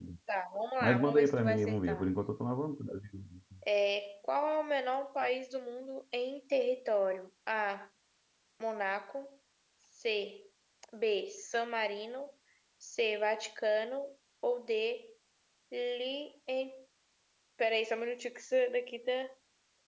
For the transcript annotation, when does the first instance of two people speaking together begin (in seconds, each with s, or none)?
0.8 s